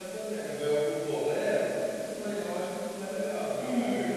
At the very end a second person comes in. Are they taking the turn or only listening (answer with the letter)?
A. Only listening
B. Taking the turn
B